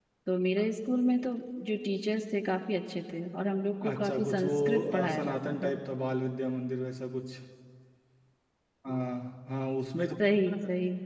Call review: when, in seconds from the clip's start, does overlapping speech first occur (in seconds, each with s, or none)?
3.9 s